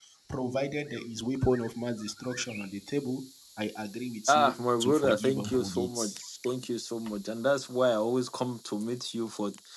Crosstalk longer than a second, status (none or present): present